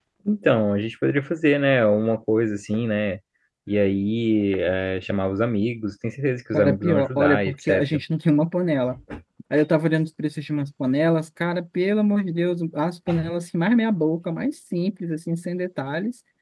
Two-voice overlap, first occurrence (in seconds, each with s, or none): 6.5 s